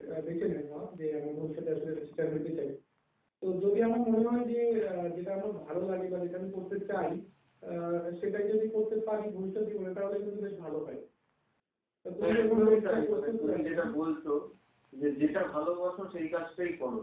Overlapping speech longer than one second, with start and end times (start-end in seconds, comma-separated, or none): 12.2-13.7